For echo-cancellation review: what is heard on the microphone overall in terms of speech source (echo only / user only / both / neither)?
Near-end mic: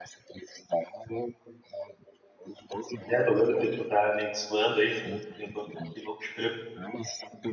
both